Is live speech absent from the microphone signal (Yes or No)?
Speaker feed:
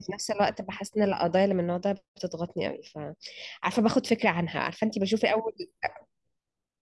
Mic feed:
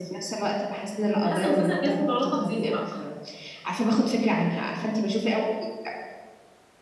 No